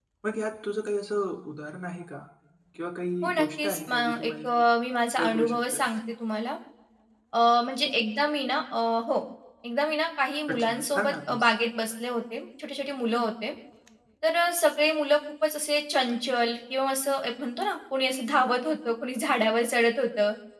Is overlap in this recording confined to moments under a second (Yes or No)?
No